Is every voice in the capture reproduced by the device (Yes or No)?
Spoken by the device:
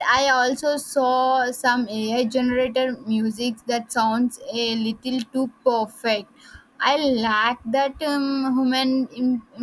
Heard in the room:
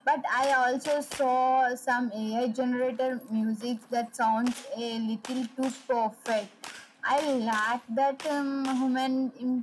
Yes